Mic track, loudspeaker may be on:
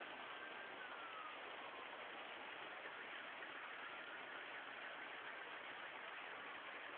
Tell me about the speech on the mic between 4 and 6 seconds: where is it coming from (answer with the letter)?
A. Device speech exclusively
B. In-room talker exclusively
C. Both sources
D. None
D